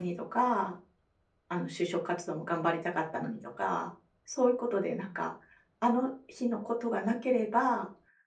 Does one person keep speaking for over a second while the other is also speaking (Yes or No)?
No